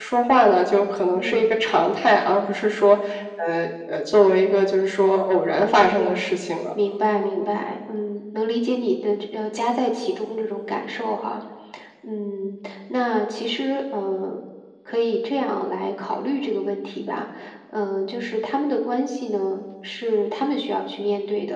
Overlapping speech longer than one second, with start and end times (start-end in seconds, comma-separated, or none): none